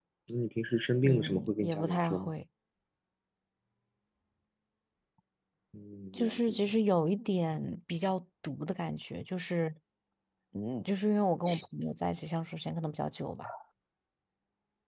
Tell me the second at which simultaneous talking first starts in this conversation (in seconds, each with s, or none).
1.0 s